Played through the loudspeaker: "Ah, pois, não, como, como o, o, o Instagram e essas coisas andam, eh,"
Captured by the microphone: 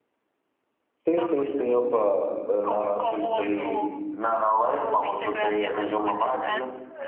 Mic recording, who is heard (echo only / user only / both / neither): both